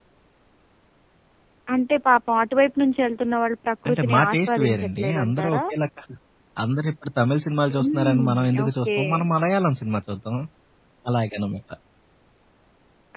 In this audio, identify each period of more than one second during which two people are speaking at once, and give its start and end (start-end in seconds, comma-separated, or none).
3.9-5.6, 7.8-9.0